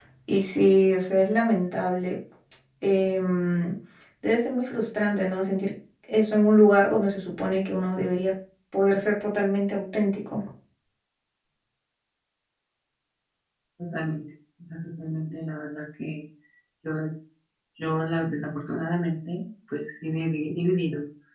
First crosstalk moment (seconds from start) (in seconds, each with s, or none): none